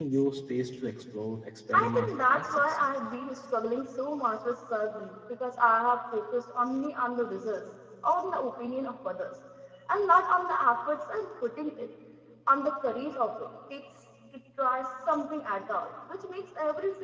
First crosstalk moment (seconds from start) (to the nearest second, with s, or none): 2 s